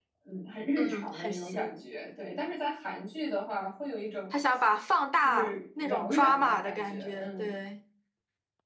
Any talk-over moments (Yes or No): Yes